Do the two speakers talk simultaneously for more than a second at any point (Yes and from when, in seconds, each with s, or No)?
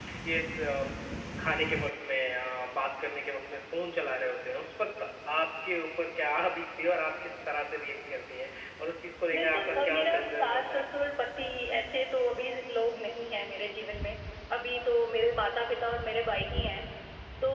Yes, from 9.3 s